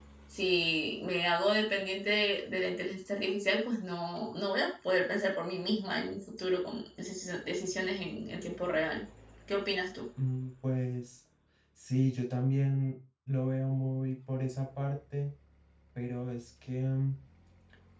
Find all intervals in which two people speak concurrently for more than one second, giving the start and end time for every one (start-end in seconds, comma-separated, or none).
none